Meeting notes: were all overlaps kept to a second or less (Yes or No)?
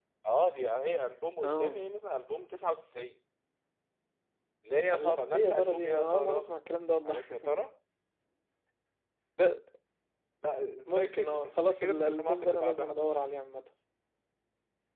No